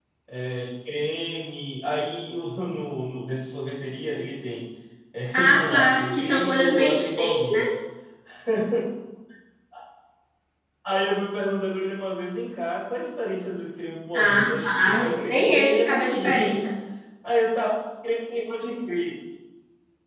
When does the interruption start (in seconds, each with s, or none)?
5.3 s